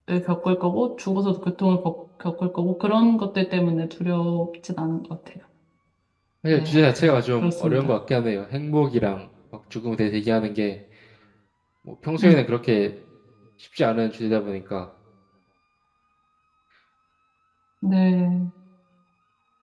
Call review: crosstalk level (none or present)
present